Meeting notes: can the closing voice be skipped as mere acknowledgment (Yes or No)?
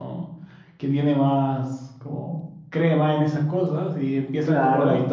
Yes